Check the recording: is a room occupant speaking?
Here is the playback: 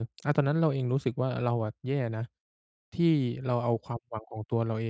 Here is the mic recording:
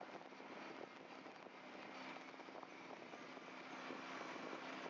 No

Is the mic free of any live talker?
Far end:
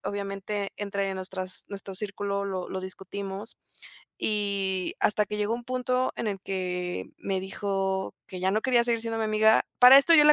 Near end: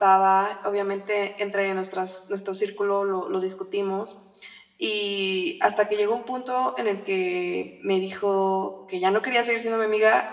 Yes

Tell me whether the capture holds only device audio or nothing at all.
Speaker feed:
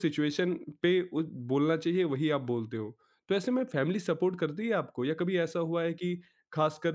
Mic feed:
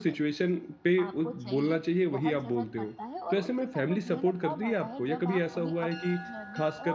No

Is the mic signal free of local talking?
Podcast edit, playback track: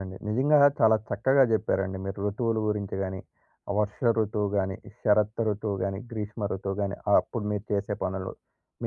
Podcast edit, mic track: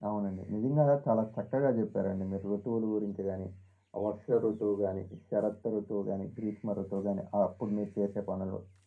Yes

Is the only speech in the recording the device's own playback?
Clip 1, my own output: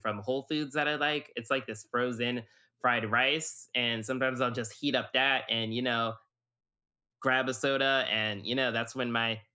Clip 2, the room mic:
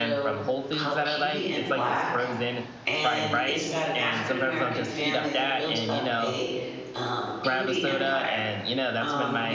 No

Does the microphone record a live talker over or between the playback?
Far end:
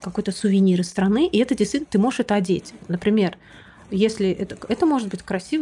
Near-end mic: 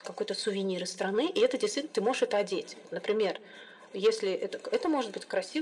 No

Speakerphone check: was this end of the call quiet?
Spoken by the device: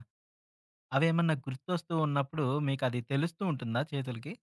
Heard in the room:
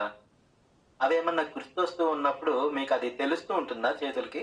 Yes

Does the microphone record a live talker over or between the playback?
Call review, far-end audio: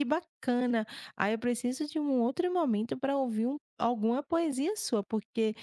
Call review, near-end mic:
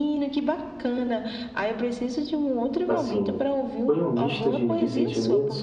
Yes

